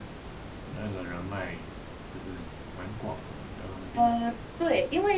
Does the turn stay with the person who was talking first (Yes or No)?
No